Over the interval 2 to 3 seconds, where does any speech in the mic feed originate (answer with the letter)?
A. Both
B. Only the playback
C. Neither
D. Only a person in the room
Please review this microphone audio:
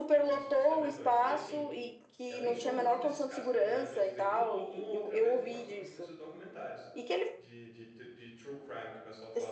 A